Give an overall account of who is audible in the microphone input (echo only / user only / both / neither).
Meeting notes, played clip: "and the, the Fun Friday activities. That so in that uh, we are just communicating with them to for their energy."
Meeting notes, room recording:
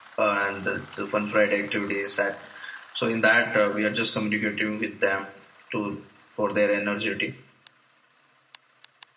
echo only